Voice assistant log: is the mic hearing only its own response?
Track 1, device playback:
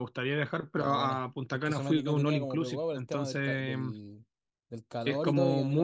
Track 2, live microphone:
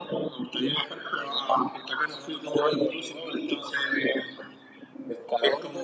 Yes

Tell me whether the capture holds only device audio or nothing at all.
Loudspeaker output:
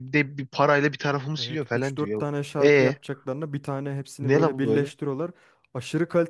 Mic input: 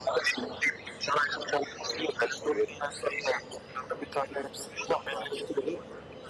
Yes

